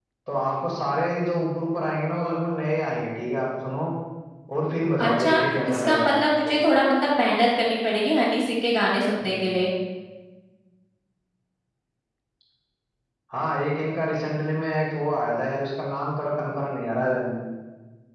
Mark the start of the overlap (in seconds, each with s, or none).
5.0 s